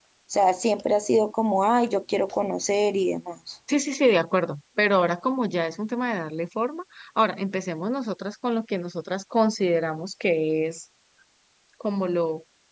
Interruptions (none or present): none